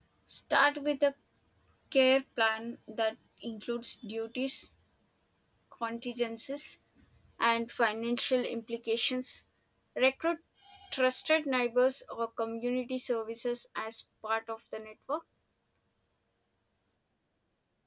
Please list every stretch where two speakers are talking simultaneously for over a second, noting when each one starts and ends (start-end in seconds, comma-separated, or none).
none